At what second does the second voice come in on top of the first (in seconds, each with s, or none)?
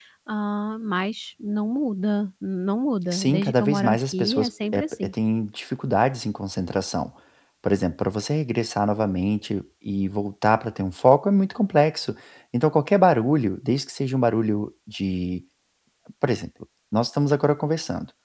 3.1 s